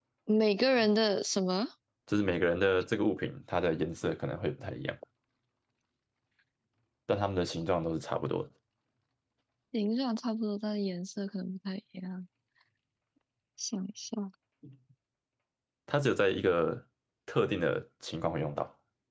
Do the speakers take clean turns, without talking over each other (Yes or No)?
Yes